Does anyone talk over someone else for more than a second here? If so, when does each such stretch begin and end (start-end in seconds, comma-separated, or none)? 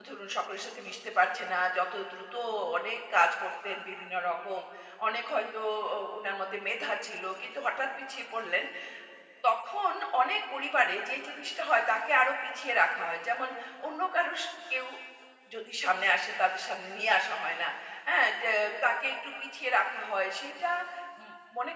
none